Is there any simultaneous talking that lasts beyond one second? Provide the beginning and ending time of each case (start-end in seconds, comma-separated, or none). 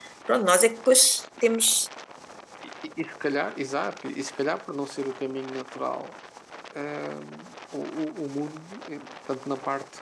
none